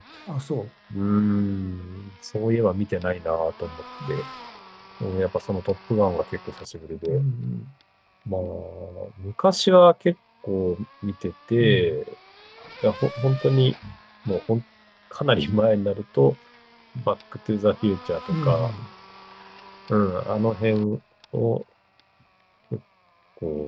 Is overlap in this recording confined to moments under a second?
Yes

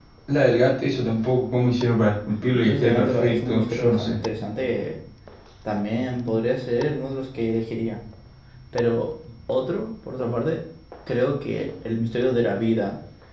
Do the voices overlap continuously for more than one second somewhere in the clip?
Yes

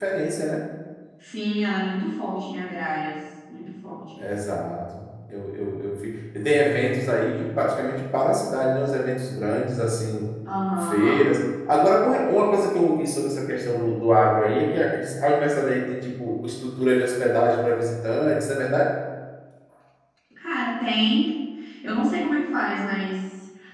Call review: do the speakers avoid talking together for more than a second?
Yes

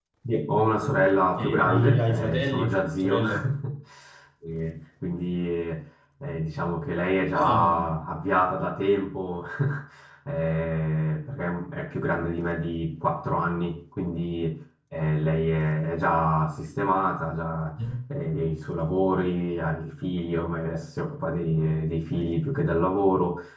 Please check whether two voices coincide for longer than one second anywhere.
Yes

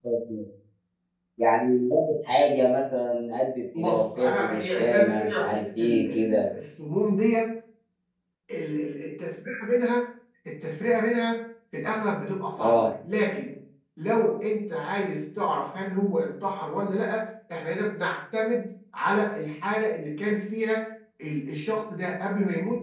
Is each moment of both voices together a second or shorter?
No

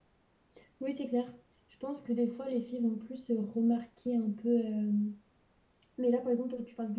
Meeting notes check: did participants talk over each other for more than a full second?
No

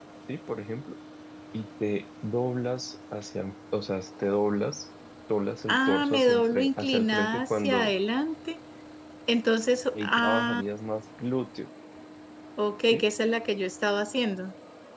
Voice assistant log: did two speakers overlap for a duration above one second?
Yes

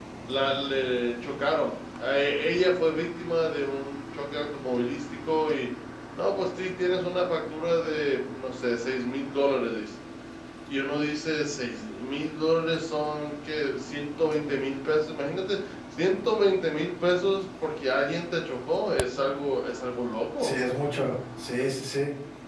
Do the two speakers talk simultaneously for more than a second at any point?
No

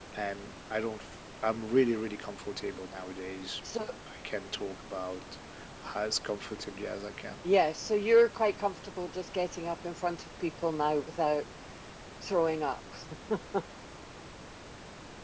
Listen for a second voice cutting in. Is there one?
No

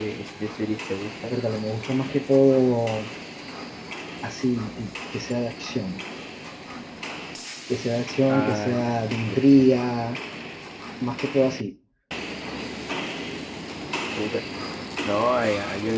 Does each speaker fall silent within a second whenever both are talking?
No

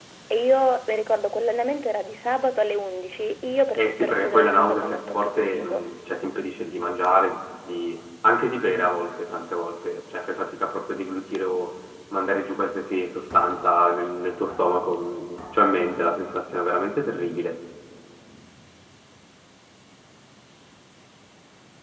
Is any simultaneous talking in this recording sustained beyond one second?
Yes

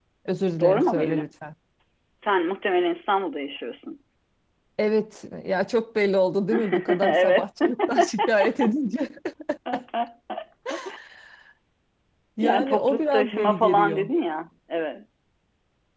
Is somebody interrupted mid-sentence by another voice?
Yes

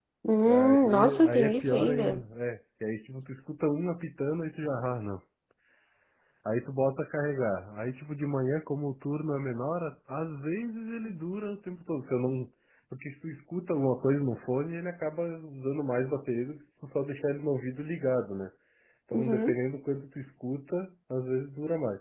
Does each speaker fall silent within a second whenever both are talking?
No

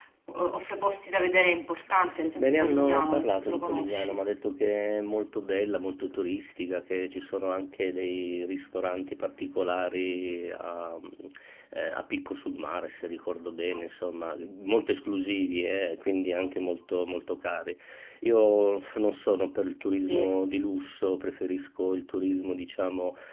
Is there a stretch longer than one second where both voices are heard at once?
Yes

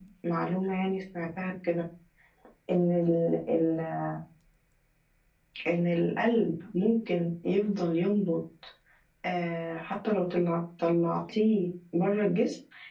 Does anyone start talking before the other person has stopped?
No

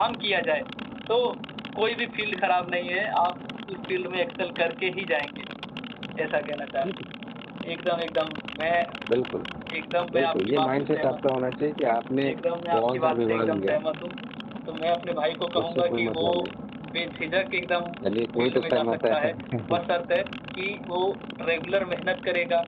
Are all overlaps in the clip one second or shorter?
No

